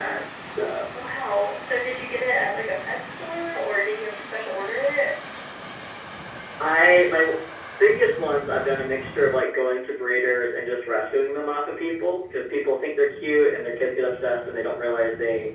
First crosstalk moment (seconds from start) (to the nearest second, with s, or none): none